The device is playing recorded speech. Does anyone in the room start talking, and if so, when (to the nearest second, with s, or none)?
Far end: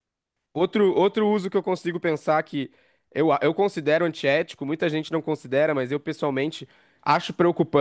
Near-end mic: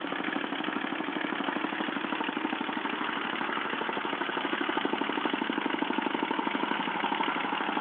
none